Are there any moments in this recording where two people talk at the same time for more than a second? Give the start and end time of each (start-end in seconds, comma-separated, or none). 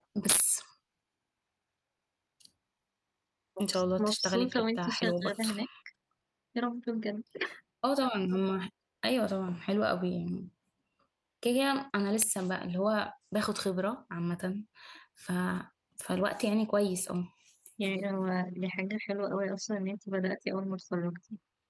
3.7-5.5